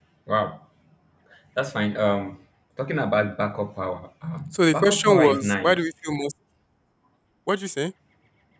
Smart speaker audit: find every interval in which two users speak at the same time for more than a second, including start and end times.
4.5-5.8

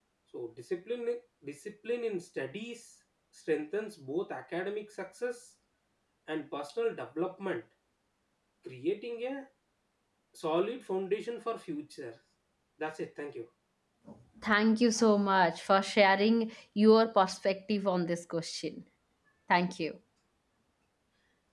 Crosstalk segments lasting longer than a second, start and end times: none

